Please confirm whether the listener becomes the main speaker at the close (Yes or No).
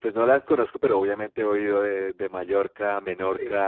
Yes